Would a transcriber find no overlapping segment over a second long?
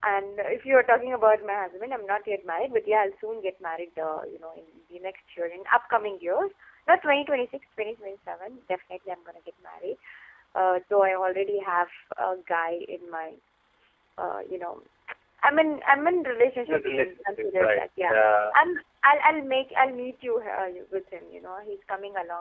No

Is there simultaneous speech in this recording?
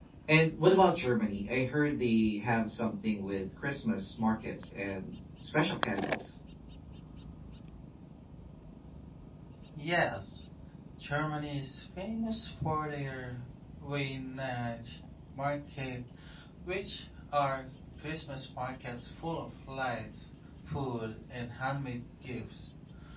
No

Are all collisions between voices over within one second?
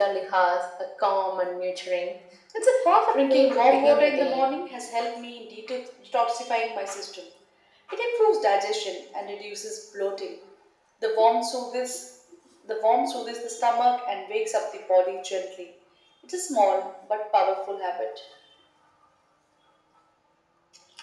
No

